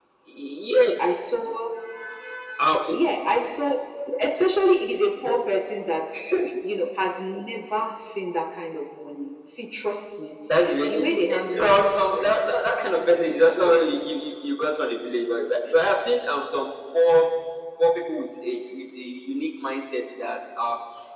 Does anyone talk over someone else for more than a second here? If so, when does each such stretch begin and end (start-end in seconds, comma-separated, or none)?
none